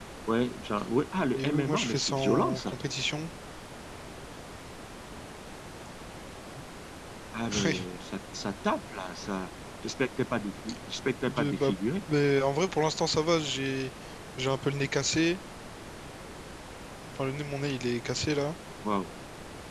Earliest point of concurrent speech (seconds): 1.3 s

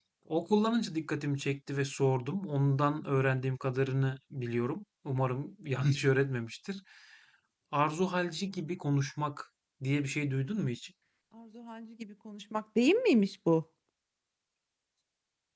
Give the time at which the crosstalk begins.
none

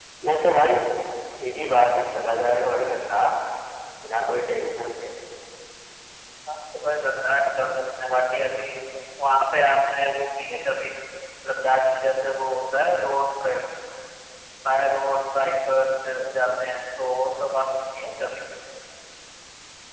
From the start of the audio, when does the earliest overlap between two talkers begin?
none

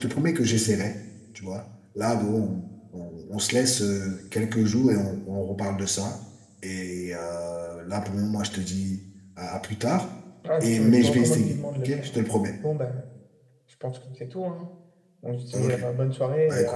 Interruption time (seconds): 10.6 s

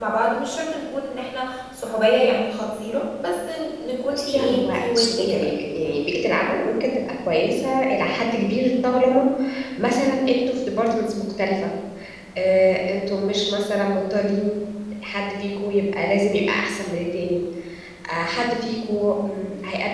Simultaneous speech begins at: 4.1 s

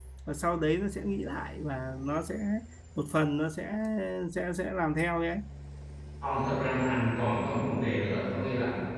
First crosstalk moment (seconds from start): none

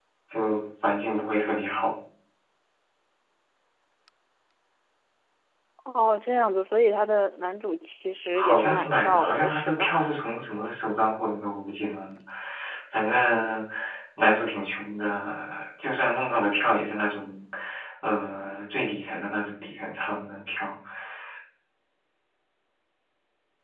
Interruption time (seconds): 8.3 s

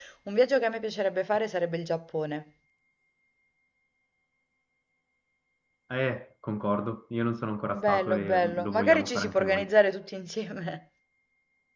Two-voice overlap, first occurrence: 7.7 s

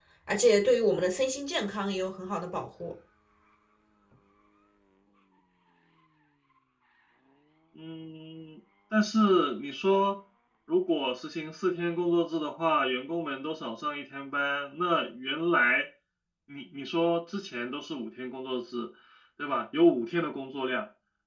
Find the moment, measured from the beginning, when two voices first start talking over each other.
none

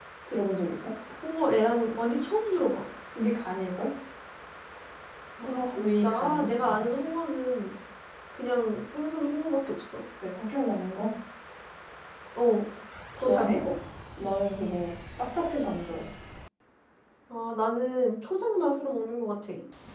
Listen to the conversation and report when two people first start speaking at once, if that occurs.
5.4 s

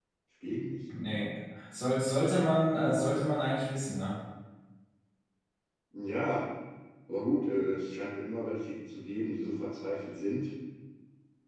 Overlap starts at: none

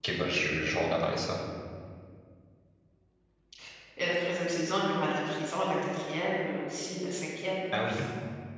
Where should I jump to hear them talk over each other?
none

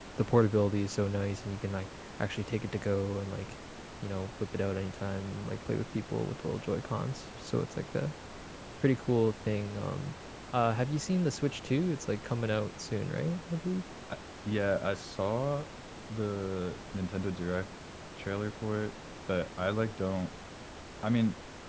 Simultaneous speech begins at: none

